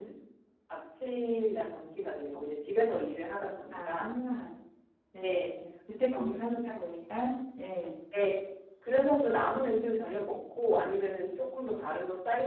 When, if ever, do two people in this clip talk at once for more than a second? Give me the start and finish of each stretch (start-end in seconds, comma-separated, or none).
none